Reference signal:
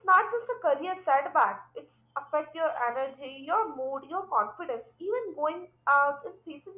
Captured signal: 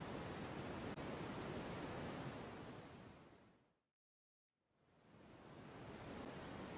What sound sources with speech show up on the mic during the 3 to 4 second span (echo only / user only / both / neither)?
neither